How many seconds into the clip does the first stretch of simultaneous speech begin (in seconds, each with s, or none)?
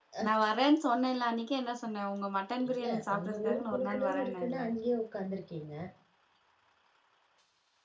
2.6 s